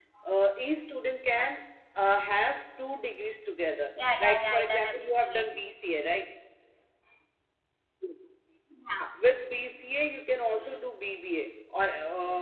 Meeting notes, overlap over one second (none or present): present